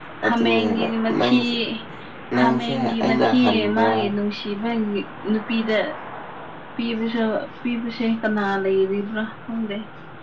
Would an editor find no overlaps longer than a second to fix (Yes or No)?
No